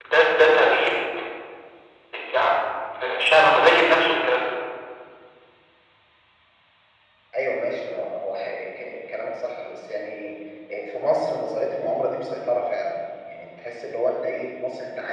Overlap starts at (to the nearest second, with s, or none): none